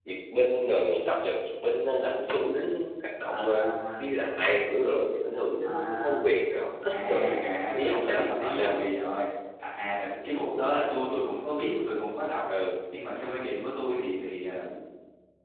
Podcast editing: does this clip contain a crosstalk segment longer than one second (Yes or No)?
Yes